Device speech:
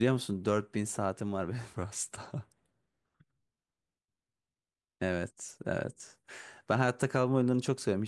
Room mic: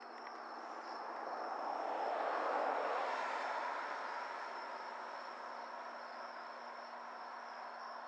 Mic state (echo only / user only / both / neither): neither